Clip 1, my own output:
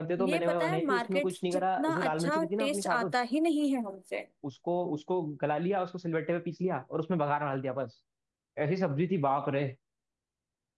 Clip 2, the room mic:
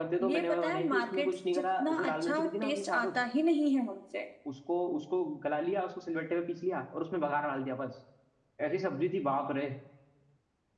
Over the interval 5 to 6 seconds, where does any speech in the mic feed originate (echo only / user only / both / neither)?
echo only